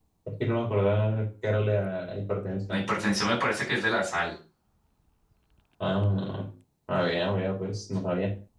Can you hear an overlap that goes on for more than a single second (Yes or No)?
No